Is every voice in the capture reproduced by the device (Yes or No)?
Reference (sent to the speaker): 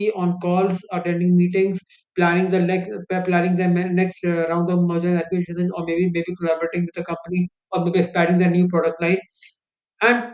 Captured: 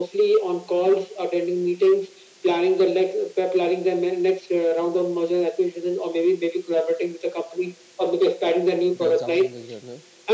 No